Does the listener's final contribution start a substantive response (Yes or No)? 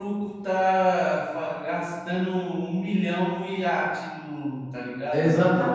Yes